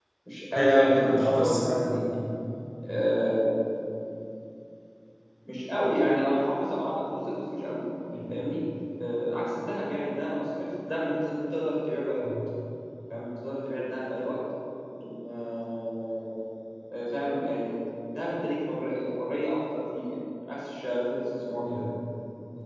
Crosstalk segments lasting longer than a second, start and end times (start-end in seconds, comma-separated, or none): 0.6-2.1